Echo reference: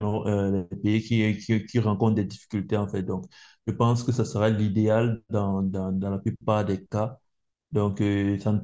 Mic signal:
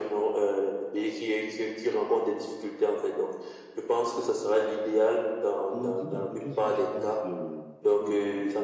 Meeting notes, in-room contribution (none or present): present